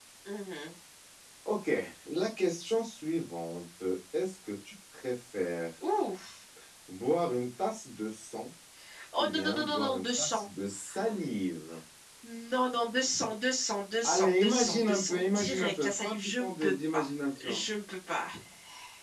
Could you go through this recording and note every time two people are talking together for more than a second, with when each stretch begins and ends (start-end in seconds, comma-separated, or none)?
9.2-10.5, 14.0-17.1